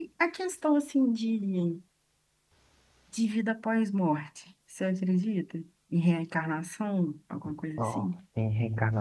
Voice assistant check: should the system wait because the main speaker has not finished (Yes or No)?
No